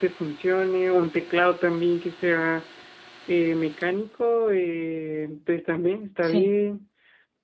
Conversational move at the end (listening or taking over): listening